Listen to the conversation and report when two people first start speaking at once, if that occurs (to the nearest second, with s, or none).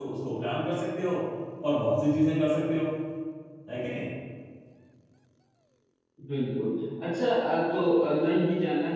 none